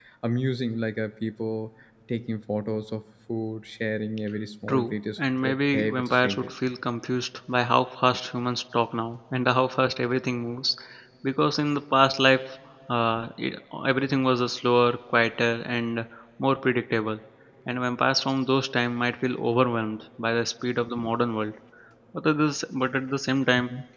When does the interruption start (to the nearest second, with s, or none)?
5 s